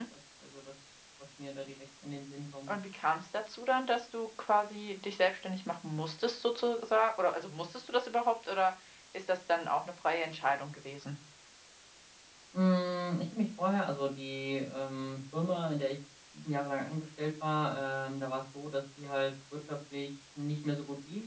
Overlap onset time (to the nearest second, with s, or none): none